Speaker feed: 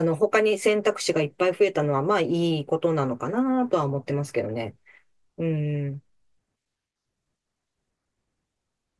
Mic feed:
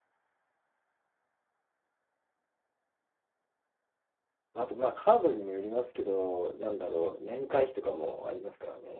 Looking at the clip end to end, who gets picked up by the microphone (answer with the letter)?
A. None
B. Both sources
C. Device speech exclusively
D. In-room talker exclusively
D